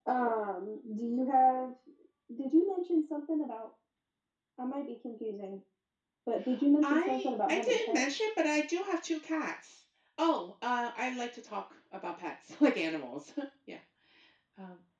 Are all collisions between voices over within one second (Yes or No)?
No